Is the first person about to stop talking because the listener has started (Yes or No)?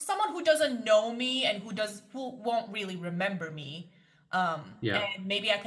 No